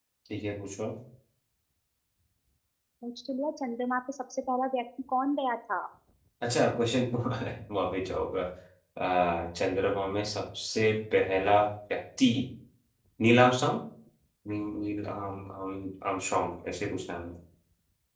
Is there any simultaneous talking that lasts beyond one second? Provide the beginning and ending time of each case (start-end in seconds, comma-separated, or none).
none